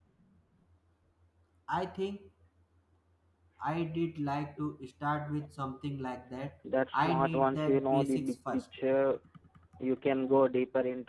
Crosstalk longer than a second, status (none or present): present